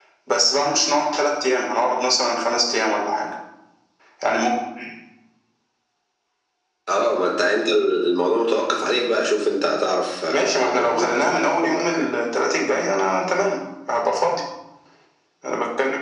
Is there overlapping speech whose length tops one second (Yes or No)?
Yes